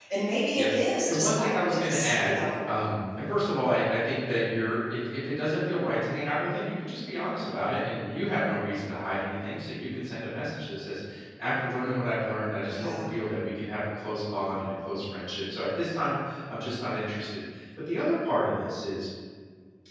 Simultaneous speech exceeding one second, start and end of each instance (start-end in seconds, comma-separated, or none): 0.6-2.4